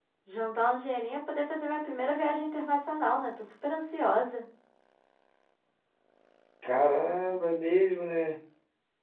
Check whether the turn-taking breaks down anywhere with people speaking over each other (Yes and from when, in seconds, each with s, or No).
No